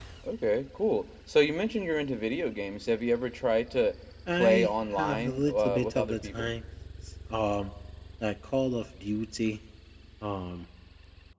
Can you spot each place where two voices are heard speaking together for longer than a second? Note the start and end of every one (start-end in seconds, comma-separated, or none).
4.3-6.5